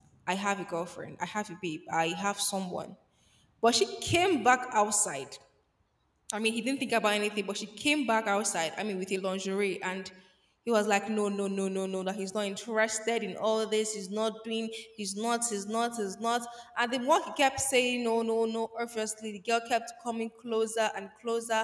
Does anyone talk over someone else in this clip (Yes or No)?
No